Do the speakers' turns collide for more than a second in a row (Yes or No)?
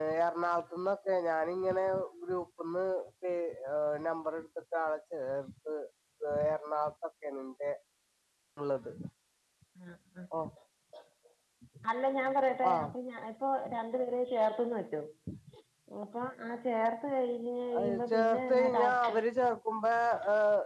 Yes